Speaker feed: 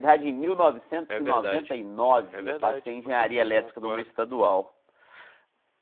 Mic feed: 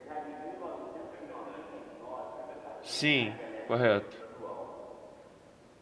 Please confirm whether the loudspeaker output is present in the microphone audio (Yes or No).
Yes